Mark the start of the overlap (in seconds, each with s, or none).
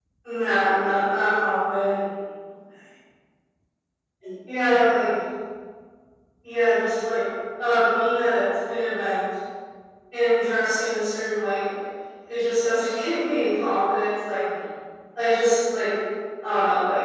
none